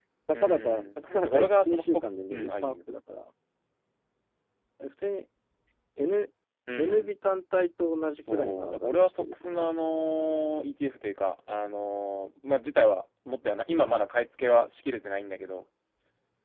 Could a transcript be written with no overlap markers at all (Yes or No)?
No